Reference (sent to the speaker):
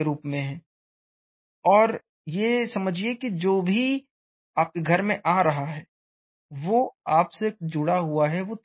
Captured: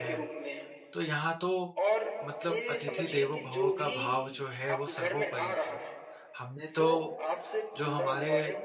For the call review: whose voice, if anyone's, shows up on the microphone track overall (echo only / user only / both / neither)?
both